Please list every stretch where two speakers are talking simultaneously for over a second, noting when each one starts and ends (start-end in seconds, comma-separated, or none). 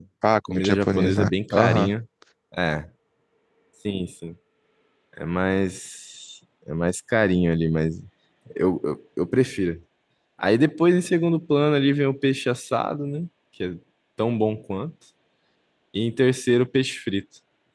0.5-1.9